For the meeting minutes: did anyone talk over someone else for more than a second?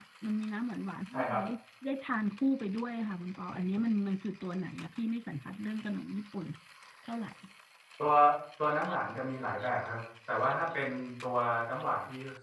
No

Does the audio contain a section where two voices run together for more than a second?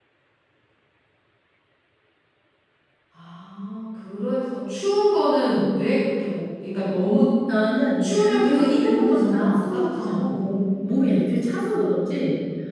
Yes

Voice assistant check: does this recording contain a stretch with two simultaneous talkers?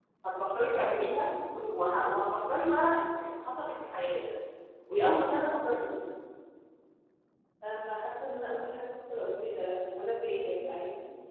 No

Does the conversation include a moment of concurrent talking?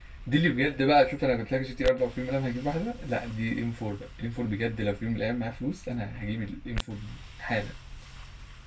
No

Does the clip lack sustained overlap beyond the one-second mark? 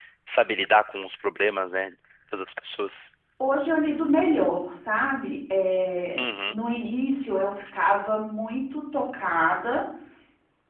Yes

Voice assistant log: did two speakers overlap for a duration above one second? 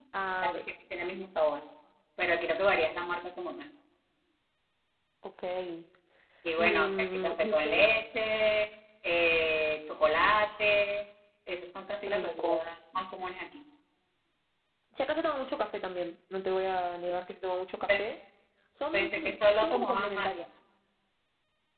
Yes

